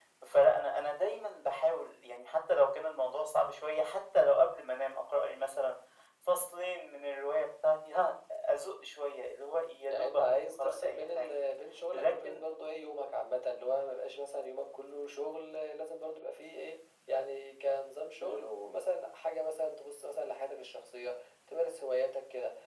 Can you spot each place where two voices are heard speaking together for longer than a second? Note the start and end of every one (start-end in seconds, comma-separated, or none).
9.9-11.4